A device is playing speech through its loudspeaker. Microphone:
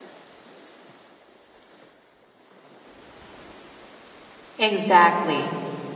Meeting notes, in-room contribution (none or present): present